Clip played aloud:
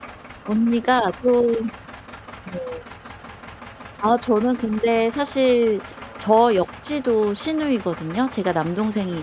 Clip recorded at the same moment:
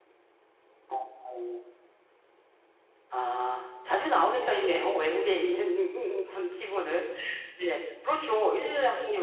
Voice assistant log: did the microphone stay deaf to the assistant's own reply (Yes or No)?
Yes